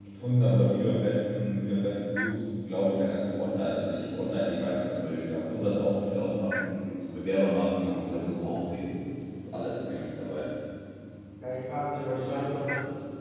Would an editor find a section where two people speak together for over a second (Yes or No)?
No